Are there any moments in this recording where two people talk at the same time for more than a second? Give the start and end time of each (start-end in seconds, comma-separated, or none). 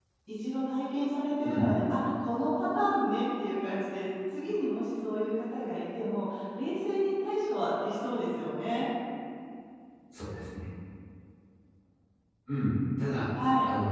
none